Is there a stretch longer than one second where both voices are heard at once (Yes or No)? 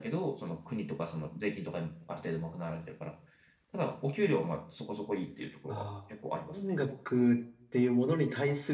No